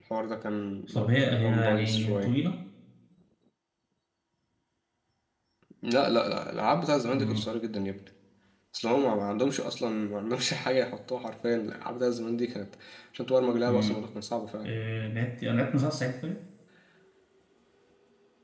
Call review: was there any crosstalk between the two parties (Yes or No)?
Yes